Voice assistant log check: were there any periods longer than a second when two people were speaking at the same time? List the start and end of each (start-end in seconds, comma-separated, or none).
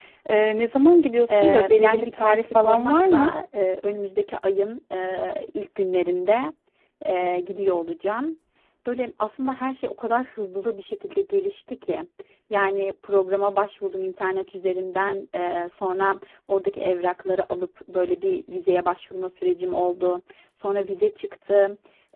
1.3-3.3